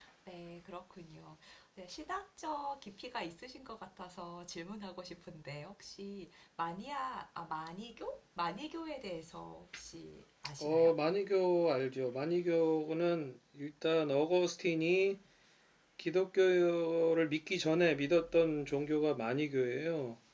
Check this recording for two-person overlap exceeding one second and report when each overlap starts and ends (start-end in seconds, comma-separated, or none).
none